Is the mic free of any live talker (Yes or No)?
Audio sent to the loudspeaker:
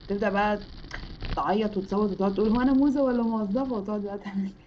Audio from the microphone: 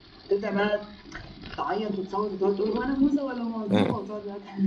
No